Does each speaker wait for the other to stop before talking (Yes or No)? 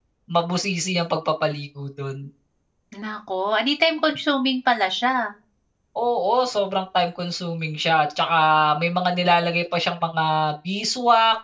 Yes